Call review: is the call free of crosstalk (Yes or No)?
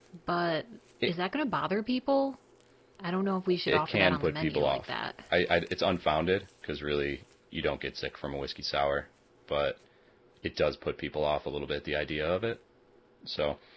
No